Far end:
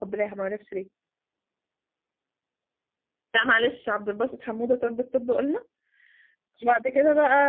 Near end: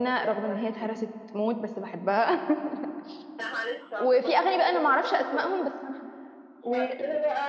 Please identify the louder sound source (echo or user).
user